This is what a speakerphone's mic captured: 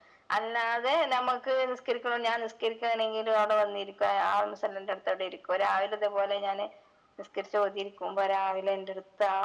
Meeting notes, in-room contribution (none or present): none